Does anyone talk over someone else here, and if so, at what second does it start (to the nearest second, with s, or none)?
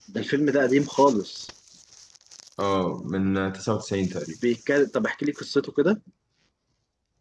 none